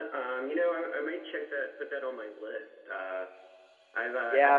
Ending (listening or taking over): taking over